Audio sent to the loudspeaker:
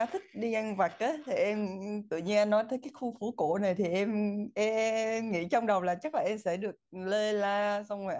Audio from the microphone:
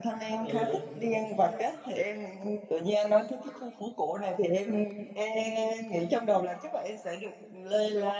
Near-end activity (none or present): present